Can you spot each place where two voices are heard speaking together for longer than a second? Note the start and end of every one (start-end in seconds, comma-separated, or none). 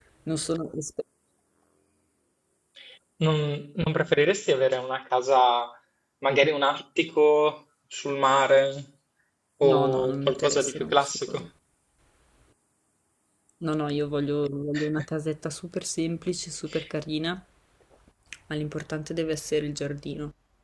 9.6-11.4